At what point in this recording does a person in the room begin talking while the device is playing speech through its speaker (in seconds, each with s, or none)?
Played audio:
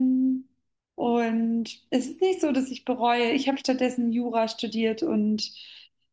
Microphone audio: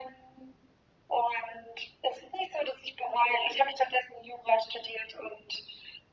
none